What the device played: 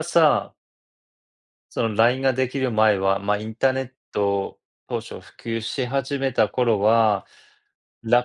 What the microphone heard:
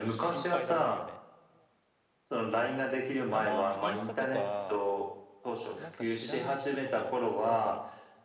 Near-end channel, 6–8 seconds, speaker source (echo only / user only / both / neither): both